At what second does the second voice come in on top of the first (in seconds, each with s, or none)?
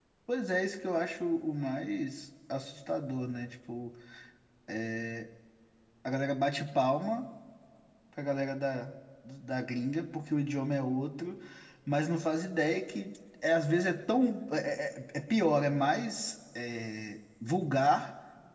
none